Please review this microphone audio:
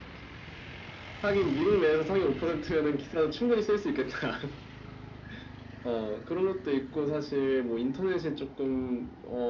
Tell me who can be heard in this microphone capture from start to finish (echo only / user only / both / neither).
echo only